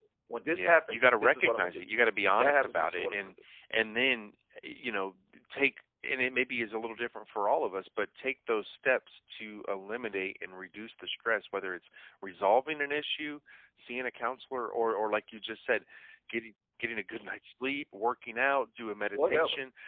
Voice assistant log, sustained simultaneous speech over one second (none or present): present